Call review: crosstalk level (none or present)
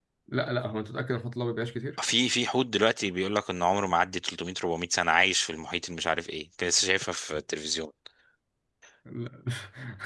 none